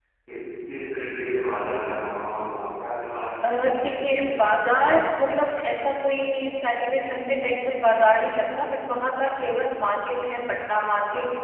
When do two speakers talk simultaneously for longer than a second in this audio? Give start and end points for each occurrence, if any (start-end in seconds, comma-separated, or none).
3.5-4.9